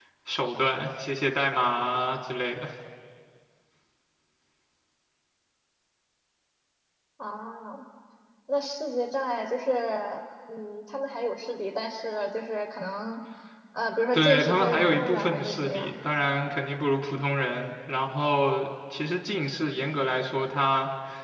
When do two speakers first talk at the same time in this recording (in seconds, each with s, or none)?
14.1 s